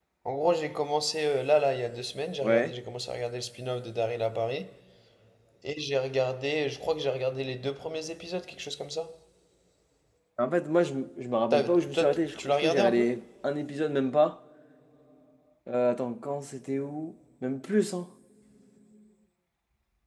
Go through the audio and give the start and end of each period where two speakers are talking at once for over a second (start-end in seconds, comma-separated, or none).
11.5-13.1